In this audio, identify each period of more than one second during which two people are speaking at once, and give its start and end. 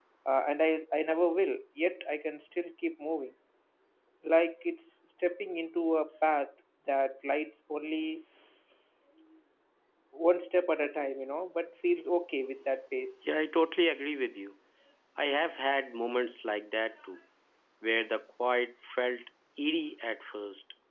none

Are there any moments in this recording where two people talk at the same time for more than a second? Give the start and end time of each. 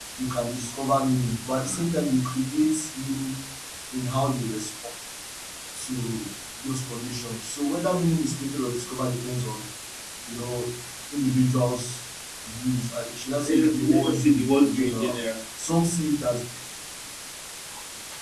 13.4-15.2

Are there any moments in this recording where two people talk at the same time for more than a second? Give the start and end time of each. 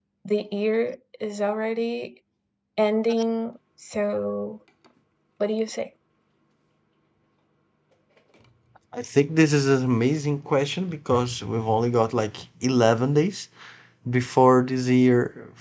none

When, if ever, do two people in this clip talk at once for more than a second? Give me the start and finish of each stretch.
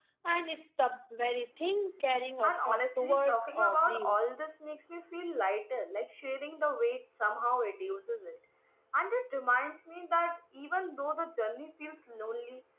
2.4-4.2

